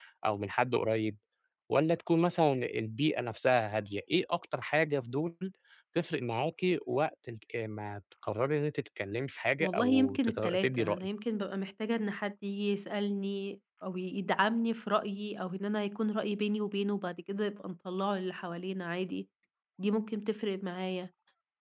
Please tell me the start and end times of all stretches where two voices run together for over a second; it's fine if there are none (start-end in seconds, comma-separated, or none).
9.6-11.1